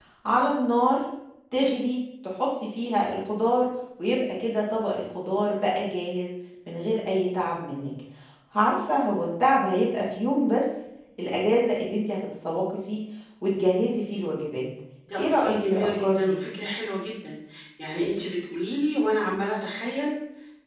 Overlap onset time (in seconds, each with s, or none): 15.2 s